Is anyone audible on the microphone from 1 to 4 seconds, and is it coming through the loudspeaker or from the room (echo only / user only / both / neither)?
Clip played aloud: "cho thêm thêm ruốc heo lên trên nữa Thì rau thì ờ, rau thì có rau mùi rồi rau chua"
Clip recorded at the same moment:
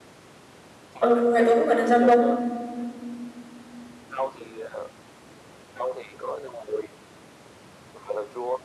both